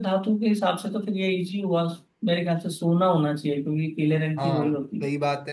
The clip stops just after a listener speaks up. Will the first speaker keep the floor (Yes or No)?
No